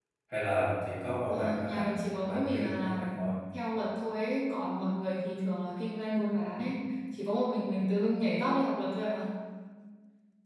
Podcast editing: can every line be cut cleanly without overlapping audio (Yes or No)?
No